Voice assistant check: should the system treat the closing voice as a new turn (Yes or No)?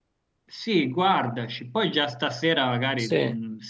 No